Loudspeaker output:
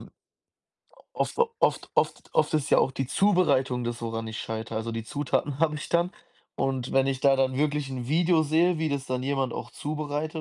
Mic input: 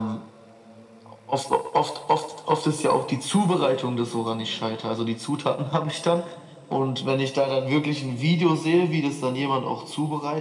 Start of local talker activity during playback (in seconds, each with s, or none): none